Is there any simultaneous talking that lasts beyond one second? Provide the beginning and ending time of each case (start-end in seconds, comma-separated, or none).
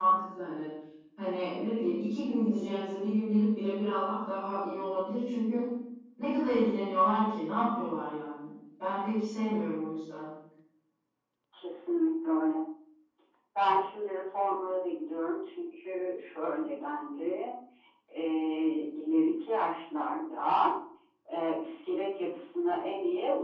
none